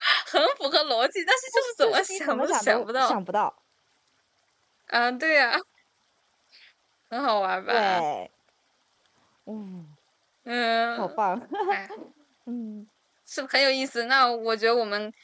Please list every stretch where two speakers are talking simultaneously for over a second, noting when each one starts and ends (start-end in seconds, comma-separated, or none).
1.5-3.2